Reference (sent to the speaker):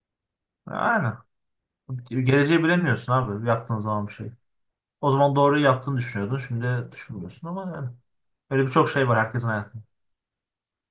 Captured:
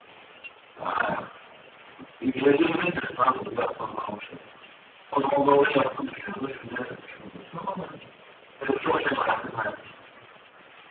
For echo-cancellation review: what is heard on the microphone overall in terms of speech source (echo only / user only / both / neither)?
echo only